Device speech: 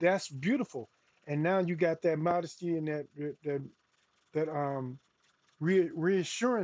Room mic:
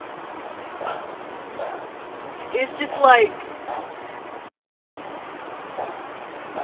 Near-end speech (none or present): present